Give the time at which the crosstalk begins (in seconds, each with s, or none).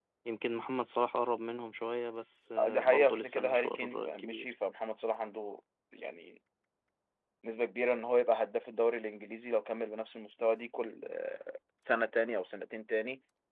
2.6 s